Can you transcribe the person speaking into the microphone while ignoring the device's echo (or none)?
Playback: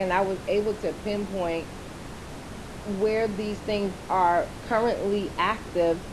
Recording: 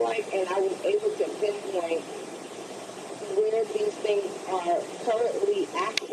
none